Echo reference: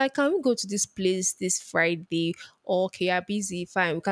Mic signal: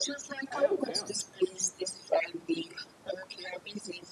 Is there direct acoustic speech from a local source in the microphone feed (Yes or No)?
Yes